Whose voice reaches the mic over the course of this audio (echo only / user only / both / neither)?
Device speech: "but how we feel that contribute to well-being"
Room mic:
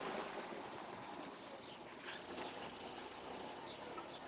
neither